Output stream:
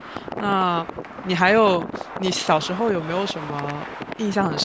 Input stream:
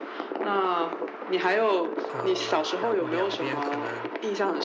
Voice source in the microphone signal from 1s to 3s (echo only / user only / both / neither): both